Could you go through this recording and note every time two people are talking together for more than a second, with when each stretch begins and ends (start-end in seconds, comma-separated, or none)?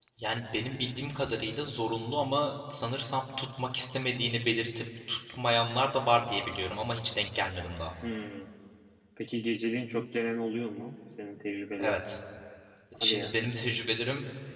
none